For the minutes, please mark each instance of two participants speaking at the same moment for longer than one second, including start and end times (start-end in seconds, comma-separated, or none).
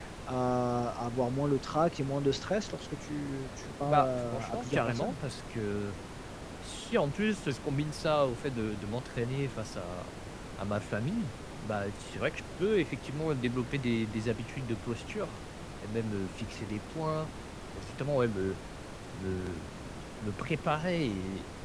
3.8-5.1